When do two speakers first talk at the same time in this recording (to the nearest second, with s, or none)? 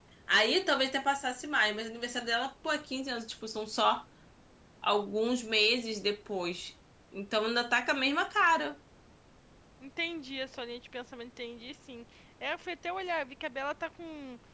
none